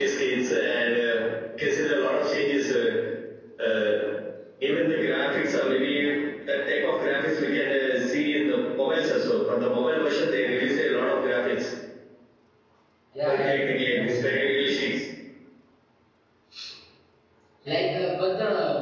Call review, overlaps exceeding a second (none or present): present